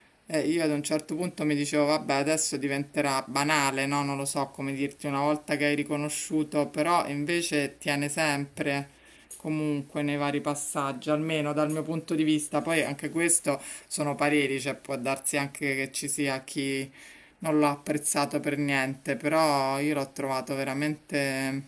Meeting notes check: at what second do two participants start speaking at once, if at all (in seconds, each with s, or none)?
none